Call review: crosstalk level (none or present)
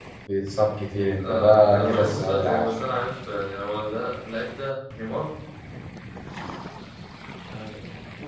present